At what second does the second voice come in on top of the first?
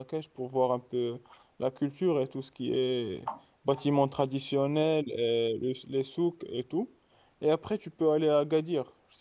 none

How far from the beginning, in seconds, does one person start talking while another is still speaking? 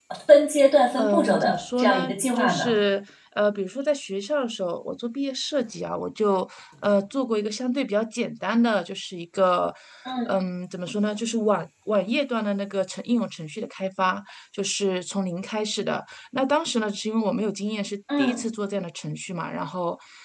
1.0 s

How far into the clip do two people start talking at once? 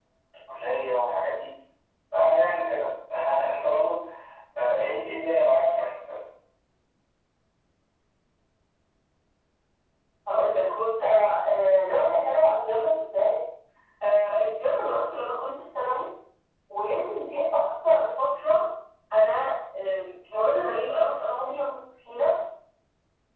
none

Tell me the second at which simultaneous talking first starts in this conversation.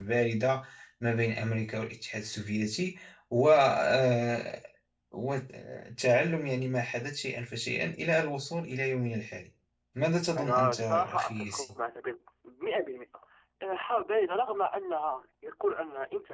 10.4 s

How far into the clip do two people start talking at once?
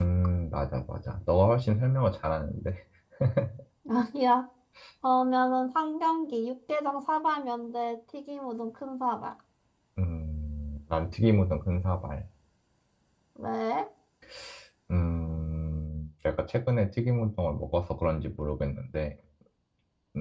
none

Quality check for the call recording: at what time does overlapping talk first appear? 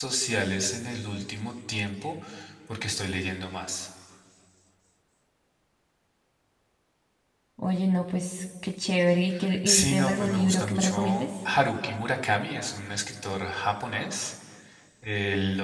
9.7 s

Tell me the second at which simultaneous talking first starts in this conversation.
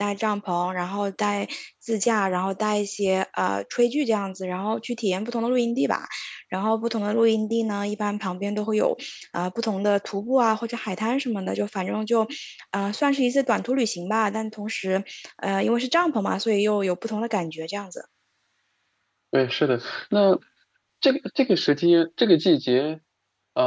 none

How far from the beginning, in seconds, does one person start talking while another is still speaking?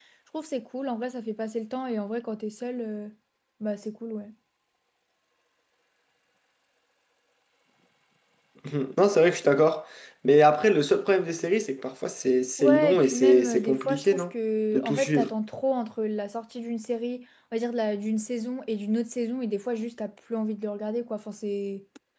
12.6 s

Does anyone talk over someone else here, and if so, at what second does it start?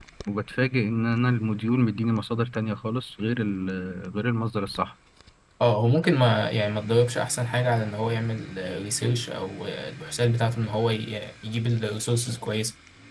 none

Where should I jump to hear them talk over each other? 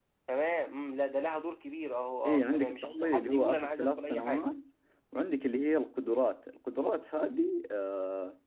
2.2 s

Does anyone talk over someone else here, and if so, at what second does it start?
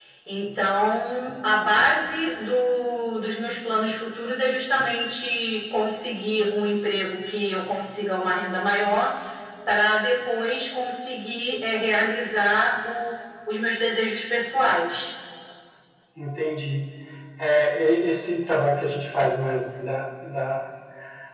none

